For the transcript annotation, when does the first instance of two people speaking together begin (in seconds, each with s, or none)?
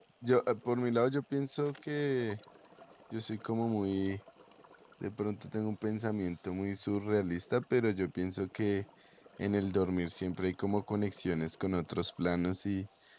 none